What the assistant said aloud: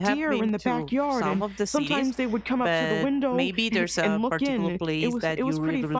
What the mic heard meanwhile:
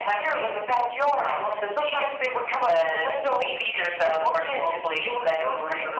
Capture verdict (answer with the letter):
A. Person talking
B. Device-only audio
B